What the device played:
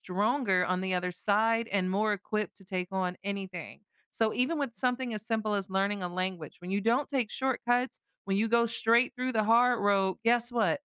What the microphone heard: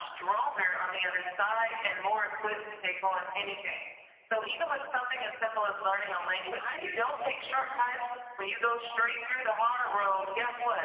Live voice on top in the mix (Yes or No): No